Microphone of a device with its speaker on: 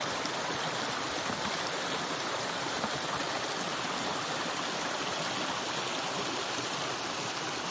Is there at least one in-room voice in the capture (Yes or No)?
No